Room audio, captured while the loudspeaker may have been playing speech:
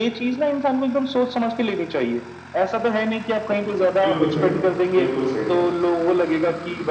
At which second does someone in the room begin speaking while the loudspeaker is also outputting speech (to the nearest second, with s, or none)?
4 s